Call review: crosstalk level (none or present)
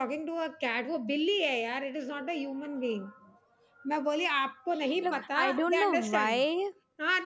present